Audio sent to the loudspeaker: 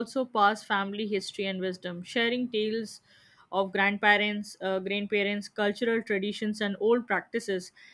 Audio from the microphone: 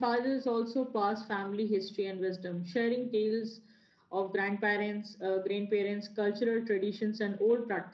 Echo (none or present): present